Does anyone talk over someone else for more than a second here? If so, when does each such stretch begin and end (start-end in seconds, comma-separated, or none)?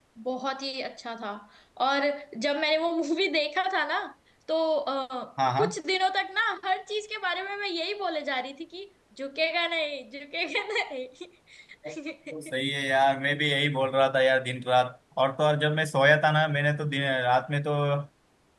none